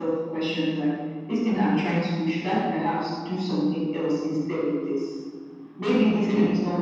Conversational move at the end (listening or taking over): listening